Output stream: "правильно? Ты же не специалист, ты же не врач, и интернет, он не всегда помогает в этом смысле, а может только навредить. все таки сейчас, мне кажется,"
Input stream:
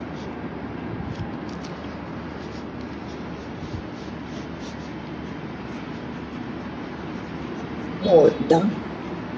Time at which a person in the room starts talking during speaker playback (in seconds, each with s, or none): 8.1 s